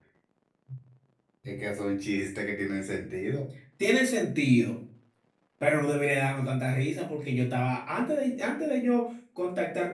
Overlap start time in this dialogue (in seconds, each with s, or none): none